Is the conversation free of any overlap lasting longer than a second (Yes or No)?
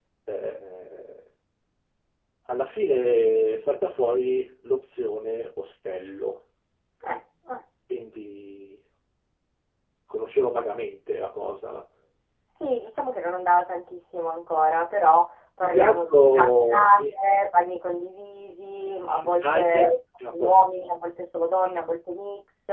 No